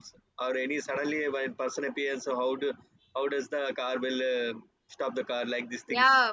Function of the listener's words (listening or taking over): taking over